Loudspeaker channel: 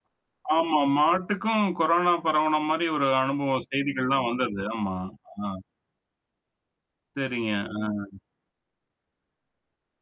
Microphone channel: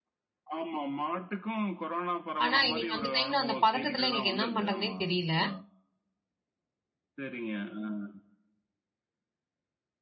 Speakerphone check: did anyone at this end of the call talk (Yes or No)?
Yes